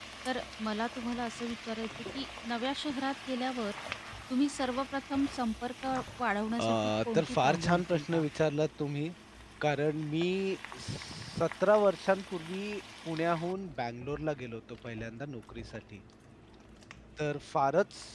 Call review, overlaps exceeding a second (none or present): present